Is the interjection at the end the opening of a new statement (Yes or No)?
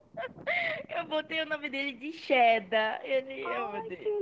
Yes